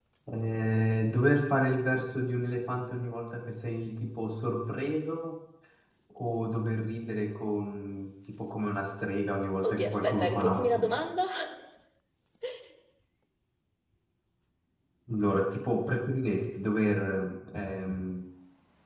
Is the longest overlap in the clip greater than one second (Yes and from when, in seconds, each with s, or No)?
Yes, from 9.6 s